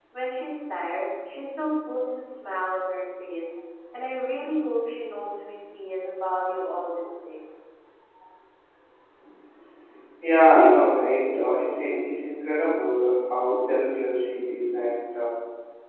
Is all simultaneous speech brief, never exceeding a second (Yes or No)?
Yes